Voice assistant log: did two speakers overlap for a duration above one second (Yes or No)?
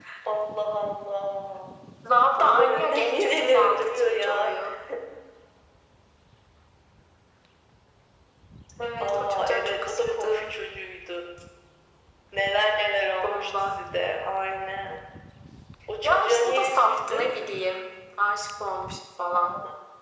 Yes